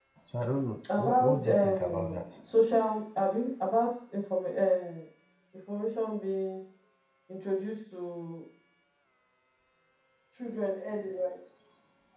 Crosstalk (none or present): present